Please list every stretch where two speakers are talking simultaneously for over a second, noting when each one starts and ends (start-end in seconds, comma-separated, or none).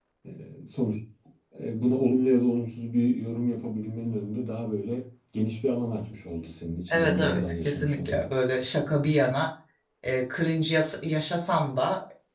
6.9-8.2